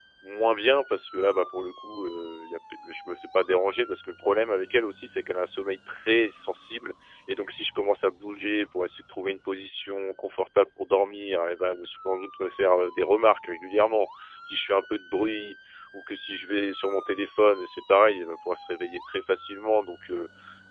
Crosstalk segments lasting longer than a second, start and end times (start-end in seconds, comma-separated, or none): none